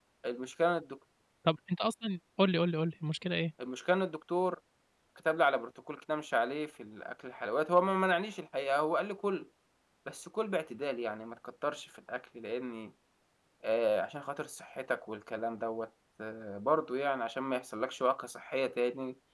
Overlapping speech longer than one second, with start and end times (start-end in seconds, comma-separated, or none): none